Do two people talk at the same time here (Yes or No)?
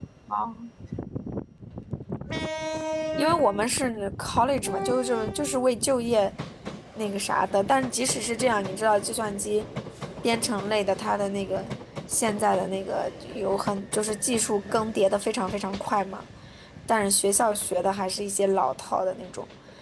No